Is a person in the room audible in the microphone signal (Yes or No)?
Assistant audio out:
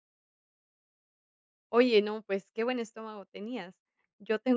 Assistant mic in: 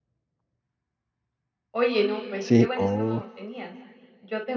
Yes